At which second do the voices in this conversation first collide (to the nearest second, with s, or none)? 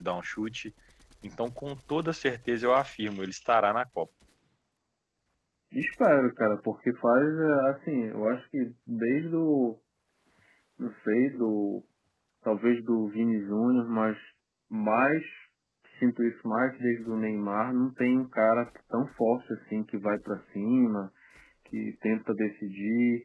none